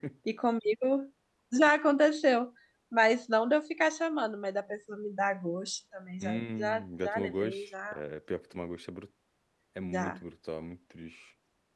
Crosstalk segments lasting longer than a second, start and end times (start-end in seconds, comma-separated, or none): 6.2-7.9